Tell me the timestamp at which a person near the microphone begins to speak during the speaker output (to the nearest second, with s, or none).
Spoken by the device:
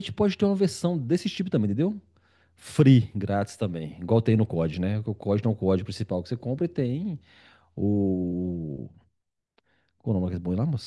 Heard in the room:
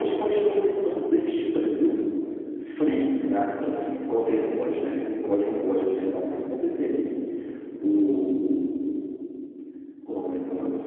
none